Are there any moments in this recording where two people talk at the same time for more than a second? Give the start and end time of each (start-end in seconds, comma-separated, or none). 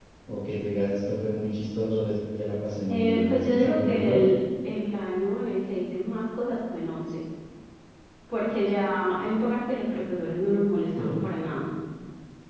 2.9-4.3